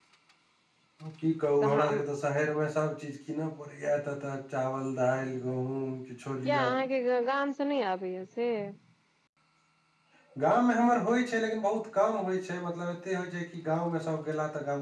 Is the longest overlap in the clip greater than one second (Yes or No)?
No